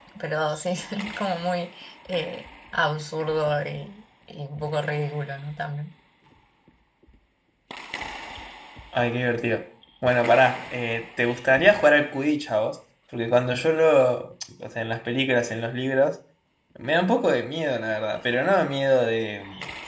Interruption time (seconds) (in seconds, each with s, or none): none